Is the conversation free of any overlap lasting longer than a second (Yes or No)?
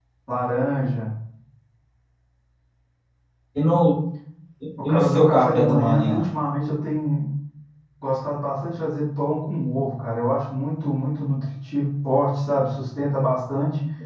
No